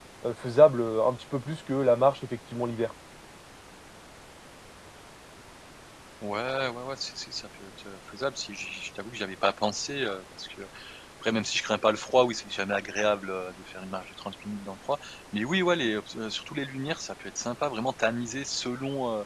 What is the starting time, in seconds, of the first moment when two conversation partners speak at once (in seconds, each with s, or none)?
none